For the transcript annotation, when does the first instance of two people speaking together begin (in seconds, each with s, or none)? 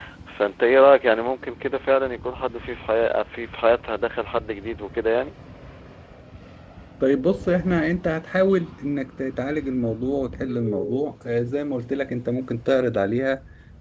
none